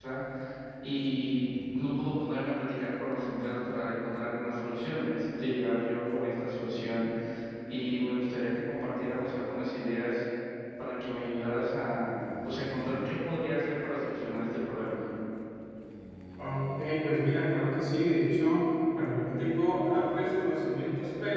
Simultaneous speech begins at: none

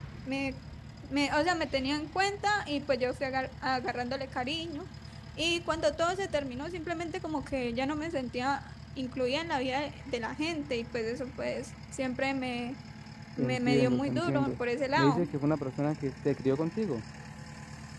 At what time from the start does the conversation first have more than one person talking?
13 s

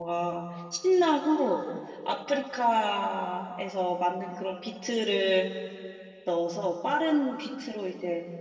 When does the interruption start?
none

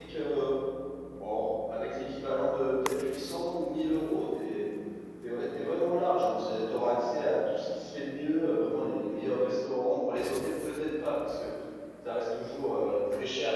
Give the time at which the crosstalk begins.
none

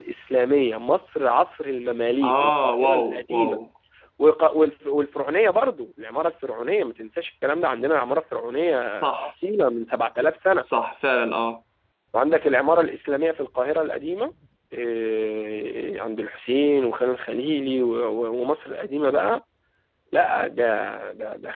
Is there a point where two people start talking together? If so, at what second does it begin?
2 s

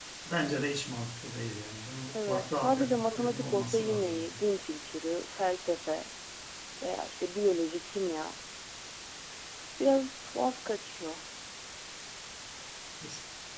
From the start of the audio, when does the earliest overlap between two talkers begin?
2 s

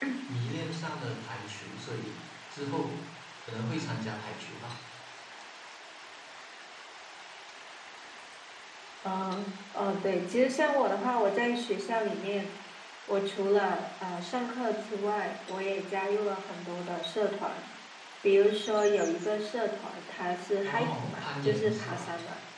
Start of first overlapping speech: 21 s

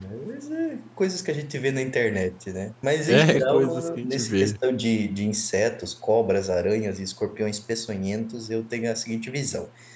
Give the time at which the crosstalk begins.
3 s

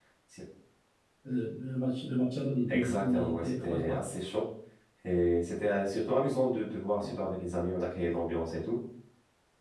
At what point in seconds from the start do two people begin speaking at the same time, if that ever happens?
3 s

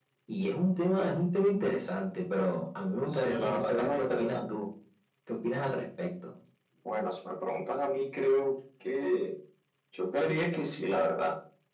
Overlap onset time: 3 s

